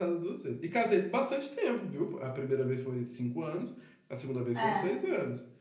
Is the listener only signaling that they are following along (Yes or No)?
Yes